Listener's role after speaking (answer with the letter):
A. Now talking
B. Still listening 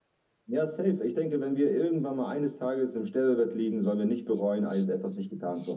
A